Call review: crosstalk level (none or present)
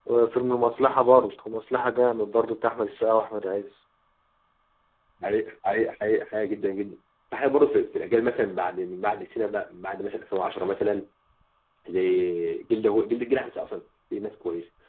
none